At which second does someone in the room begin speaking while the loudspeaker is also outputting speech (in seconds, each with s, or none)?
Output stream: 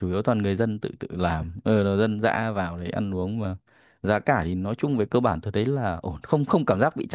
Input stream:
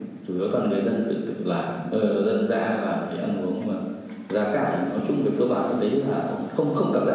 none